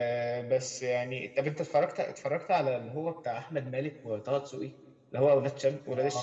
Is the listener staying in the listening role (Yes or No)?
No